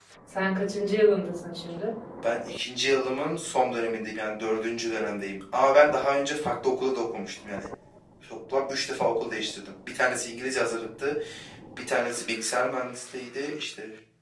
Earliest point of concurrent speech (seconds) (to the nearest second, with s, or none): none